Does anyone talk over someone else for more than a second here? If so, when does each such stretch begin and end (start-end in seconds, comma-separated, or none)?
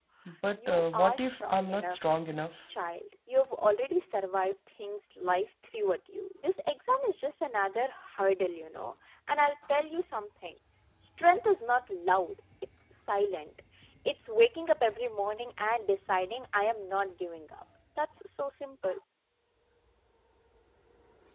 0.5-2.0